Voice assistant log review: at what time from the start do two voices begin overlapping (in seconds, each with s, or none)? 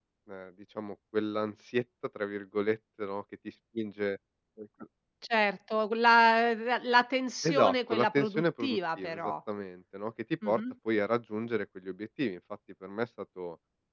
7.4 s